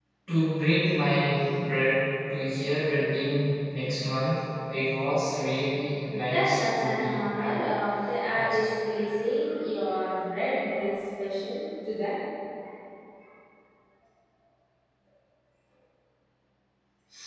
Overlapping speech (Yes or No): Yes